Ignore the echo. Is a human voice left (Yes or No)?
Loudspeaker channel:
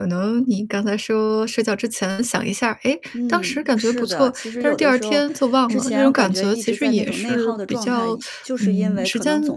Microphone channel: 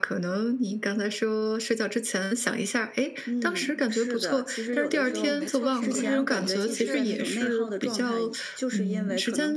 Yes